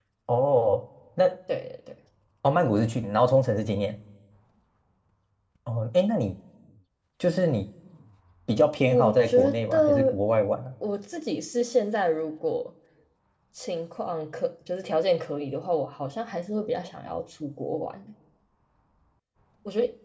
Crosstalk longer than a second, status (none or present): present